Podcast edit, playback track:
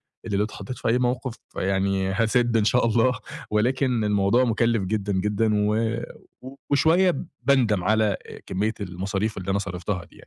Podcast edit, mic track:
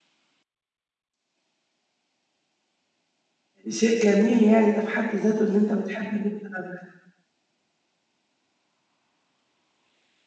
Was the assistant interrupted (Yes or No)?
Yes